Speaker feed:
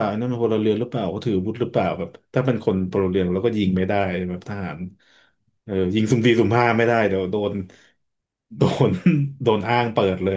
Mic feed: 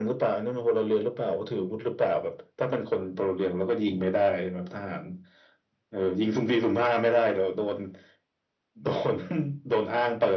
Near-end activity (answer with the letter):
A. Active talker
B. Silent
B